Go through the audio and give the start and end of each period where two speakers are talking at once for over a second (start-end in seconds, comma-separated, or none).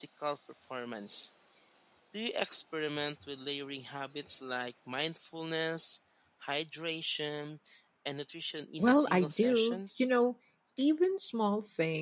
8.8-10.1